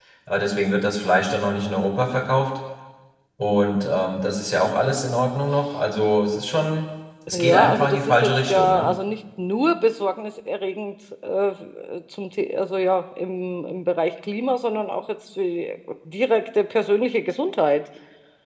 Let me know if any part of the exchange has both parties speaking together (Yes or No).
Yes